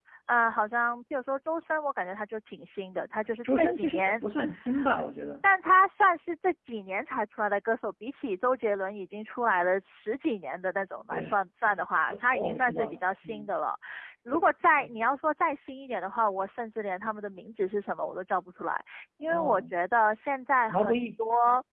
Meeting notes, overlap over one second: present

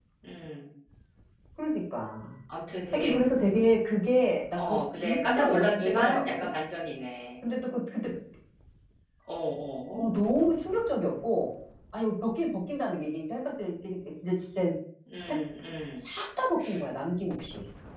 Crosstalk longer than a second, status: present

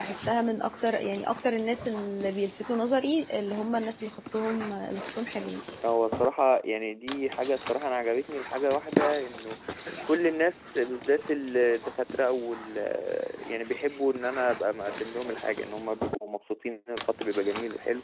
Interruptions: none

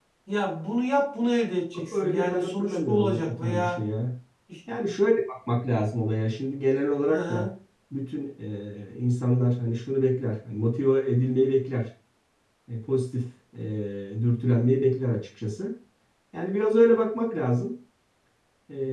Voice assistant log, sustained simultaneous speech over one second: present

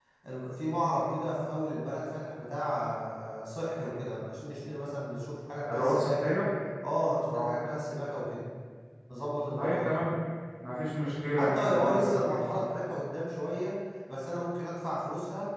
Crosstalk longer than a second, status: present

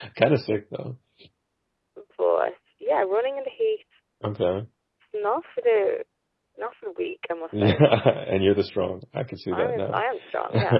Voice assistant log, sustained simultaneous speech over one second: none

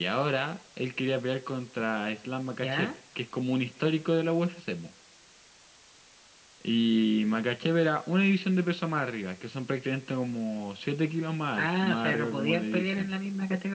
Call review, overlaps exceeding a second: present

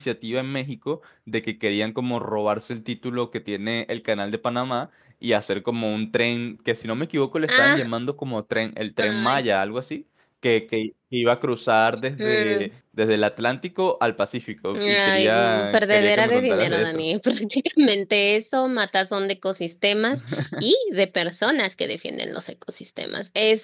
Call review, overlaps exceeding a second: present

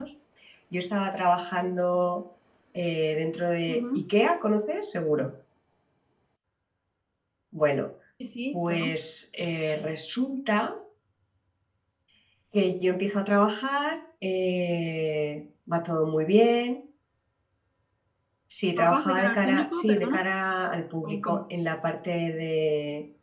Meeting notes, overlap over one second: present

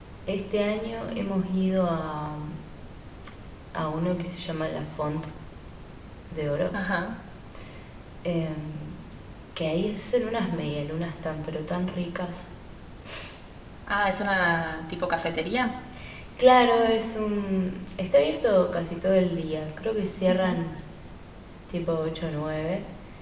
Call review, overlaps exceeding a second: none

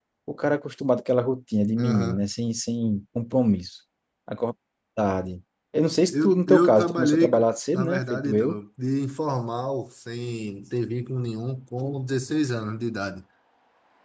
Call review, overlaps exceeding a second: present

